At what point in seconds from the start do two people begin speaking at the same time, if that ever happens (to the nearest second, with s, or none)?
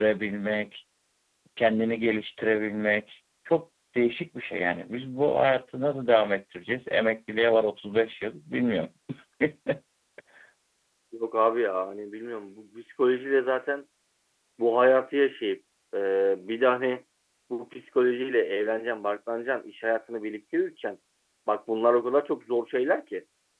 none